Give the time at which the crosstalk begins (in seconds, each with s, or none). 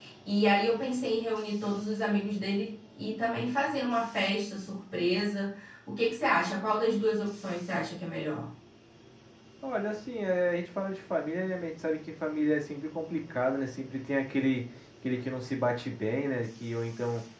none